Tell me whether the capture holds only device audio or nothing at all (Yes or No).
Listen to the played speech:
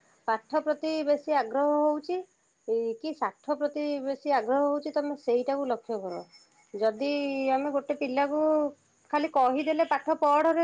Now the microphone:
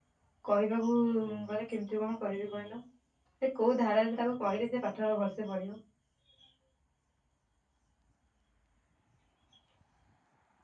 No